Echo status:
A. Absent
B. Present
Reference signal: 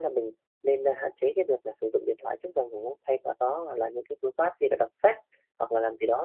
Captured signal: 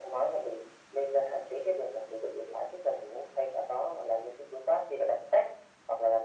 B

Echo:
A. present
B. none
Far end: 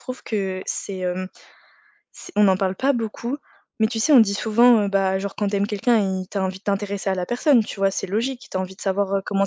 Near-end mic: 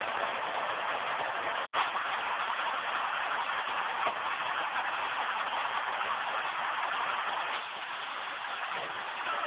B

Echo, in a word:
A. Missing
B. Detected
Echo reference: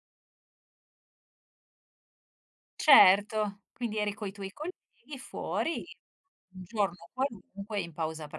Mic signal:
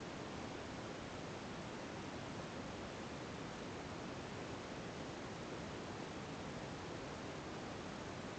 A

